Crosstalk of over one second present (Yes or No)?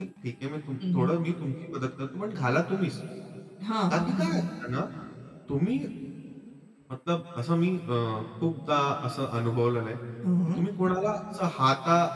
No